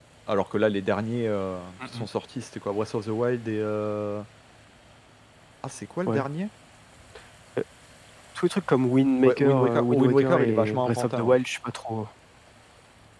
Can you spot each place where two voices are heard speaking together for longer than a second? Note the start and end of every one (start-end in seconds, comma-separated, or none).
9.2-11.3